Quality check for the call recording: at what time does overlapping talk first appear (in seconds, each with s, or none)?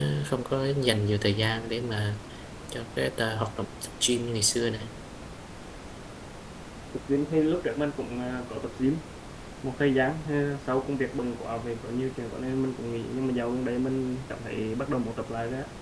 none